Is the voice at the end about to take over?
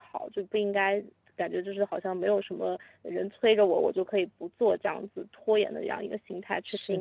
Yes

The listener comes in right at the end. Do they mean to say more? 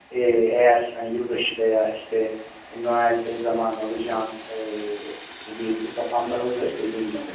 No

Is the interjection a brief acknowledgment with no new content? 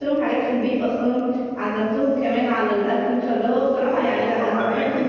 No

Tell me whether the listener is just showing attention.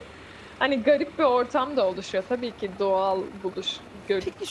No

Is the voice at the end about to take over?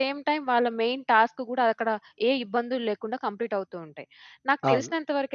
No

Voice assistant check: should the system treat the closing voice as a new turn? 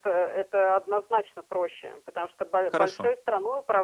No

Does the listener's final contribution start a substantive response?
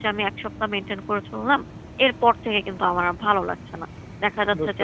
No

